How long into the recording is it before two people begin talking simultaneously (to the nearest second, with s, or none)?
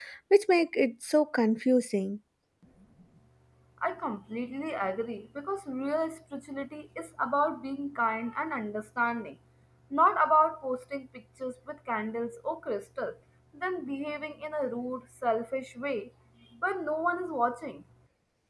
none